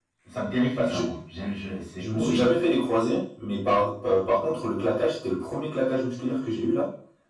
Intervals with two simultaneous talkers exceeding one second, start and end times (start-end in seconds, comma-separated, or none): none